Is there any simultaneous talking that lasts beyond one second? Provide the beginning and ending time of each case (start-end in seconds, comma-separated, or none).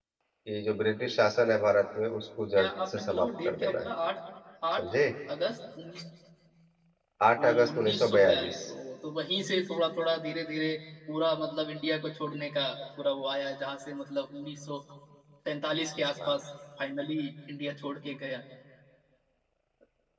2.6-3.8, 7.4-8.6